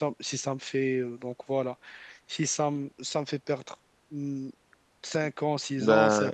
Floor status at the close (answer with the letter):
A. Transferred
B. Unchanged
B